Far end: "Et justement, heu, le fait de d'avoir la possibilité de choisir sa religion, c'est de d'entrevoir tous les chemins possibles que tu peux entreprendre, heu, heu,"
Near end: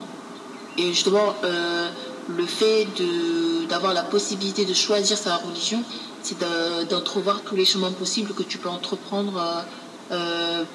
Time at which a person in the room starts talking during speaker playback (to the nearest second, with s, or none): none